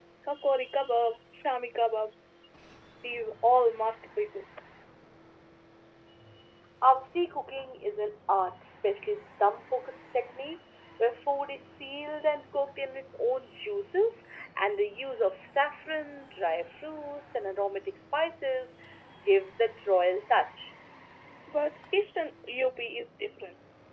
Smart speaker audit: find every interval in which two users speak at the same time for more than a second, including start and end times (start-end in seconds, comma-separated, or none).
none